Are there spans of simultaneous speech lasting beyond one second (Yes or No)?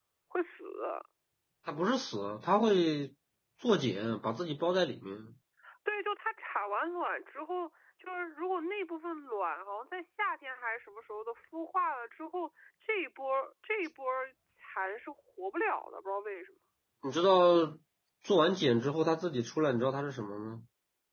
No